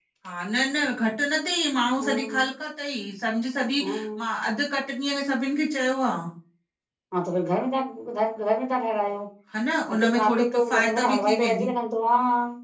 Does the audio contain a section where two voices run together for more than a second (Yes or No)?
Yes